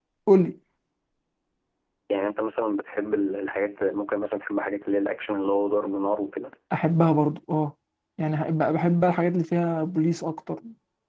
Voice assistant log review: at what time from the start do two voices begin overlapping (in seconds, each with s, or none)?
none